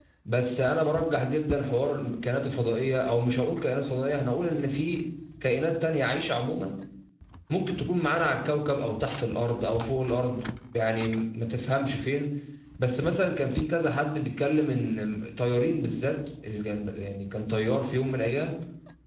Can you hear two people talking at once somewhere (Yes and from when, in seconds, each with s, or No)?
No